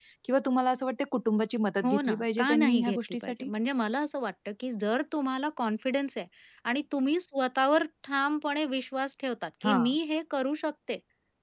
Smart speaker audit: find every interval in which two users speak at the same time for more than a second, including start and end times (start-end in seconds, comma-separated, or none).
1.8-3.5